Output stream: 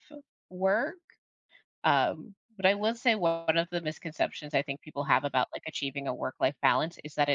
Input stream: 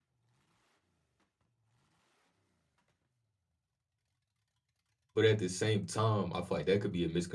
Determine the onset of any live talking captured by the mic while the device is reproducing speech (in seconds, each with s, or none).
5.1 s